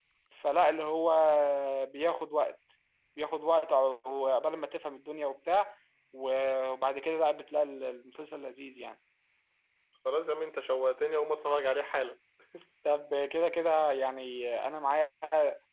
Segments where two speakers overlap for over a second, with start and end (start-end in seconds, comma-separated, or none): none